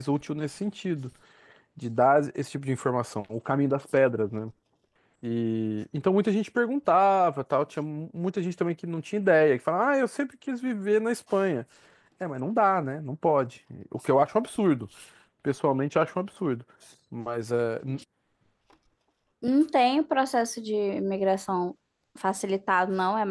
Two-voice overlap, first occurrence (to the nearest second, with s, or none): none